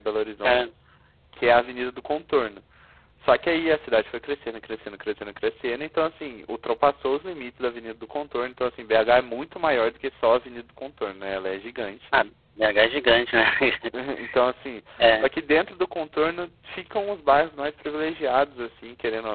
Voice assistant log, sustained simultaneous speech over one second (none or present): none